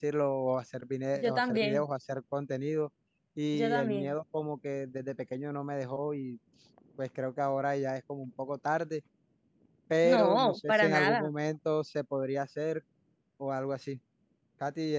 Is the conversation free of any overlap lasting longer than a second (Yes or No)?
No